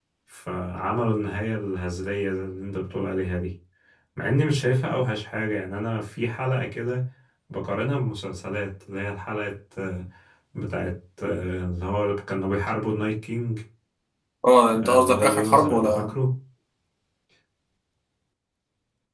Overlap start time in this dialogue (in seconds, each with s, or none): 14.8 s